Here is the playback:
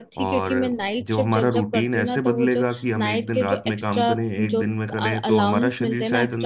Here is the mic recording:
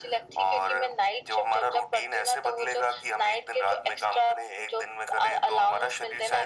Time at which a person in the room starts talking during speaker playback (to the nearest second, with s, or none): none